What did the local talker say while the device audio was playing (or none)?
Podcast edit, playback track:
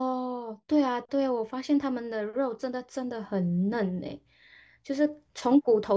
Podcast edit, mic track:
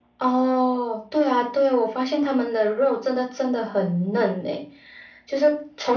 none